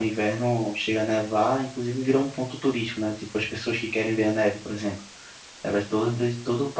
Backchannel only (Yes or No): Yes